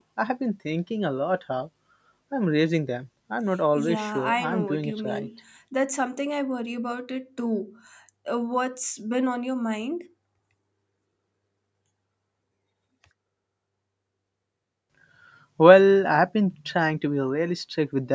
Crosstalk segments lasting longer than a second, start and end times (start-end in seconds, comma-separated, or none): 3.7-5.3